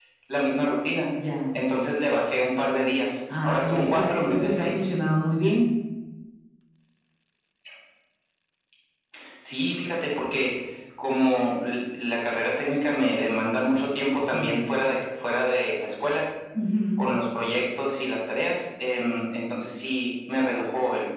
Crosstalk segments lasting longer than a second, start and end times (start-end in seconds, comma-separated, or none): 3.4-4.9